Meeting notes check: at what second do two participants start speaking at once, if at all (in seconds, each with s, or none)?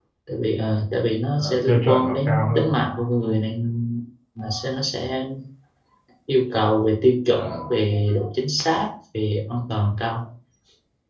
1.4 s